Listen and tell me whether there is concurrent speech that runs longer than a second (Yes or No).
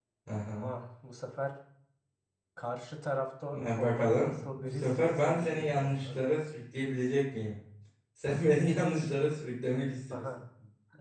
Yes